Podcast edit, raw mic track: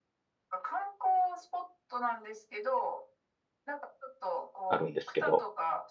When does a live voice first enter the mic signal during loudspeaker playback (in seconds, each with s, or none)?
4.7 s